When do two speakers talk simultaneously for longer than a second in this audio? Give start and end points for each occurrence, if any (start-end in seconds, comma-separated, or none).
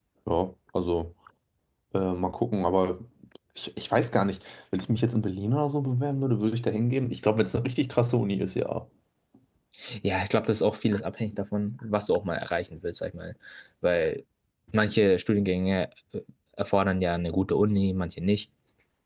none